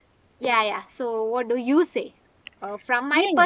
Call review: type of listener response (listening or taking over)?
listening